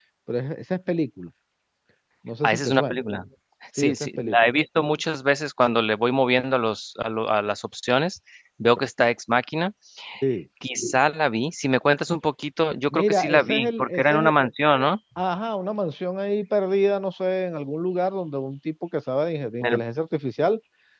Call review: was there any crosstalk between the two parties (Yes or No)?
Yes